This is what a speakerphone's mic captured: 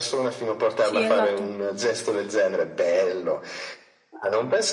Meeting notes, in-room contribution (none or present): present